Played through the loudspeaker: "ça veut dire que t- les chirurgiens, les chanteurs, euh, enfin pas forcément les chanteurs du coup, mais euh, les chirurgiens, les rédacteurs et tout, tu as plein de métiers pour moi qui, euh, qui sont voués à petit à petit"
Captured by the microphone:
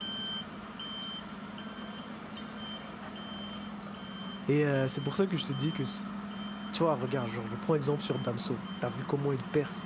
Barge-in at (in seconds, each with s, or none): 4.4 s